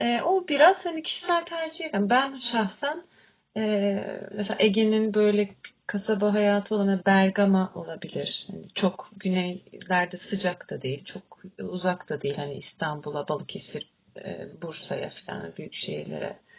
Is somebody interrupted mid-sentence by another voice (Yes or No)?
No